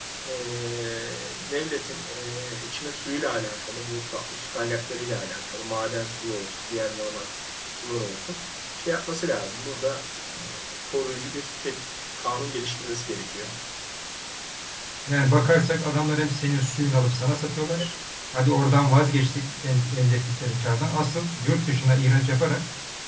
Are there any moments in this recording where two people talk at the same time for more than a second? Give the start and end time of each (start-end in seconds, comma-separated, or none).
none